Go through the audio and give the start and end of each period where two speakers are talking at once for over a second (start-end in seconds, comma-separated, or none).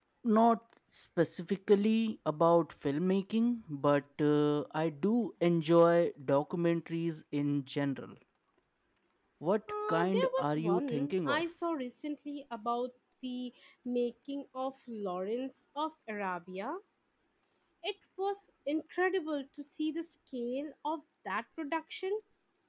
9.9-11.4